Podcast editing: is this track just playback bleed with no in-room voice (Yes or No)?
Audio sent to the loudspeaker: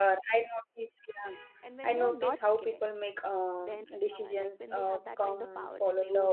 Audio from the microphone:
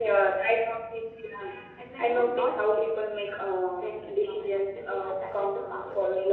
Yes